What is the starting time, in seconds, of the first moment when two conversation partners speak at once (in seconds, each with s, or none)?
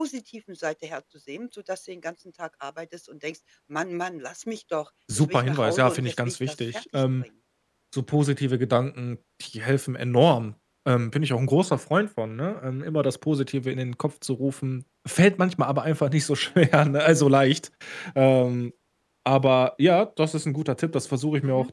5.2 s